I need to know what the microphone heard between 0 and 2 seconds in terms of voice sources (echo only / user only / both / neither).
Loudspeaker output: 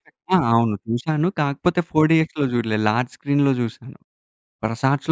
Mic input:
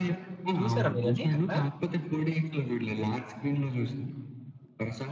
both